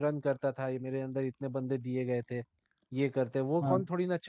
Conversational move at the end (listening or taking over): listening